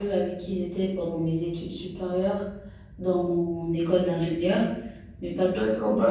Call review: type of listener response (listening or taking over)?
taking over